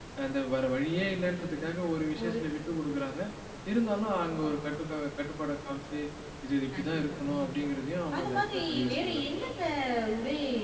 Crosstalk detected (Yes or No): Yes